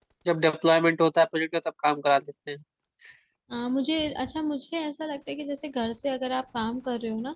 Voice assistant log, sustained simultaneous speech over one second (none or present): none